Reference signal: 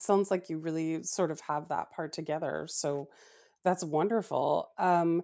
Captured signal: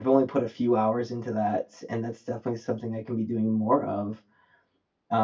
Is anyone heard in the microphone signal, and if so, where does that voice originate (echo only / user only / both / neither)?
user only